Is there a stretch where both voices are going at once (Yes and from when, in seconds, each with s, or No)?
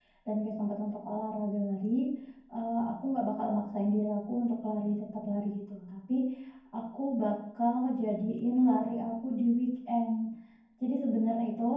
No